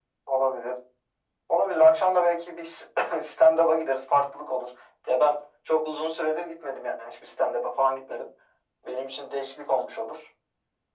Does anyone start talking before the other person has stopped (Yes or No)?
No